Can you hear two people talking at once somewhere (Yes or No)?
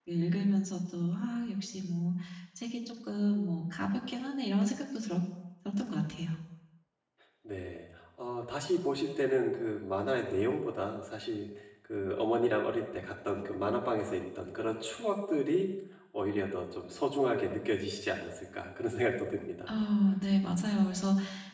No